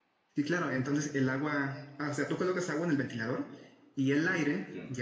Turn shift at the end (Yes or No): No